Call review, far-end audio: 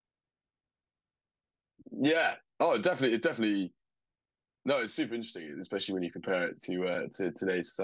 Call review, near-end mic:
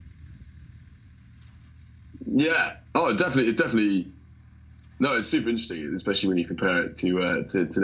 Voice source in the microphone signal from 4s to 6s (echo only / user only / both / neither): echo only